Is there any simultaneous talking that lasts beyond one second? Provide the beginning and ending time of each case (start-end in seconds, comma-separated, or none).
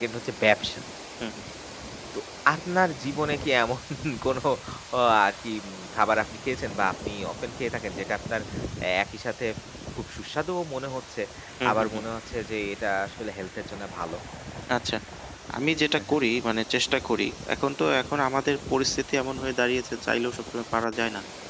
none